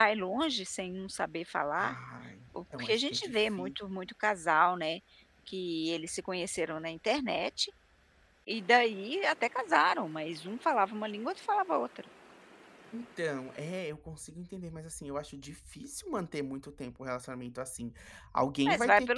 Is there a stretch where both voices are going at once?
Yes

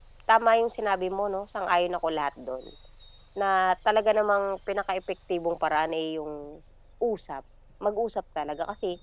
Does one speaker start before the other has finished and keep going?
No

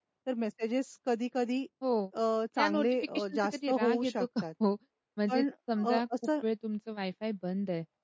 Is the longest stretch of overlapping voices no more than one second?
No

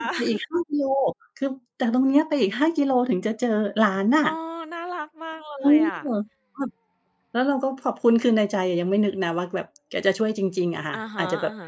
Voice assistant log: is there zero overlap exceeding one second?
Yes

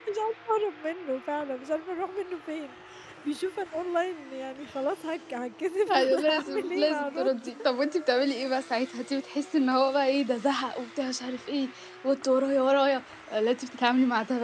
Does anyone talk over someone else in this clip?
Yes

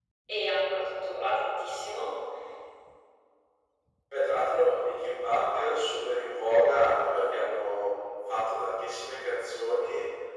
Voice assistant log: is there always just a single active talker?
Yes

